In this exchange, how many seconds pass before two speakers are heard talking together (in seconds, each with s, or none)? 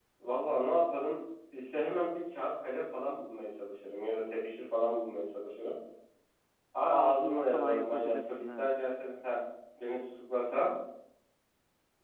6.9 s